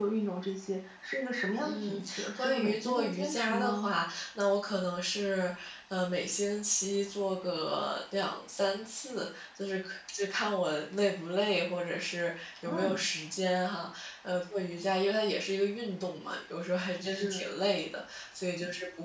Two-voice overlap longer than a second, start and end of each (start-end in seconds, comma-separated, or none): 1.6-3.9